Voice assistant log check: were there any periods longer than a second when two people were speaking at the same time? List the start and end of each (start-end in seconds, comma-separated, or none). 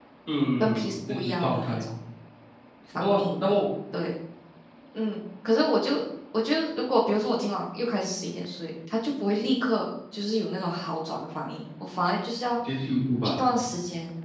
0.6-1.8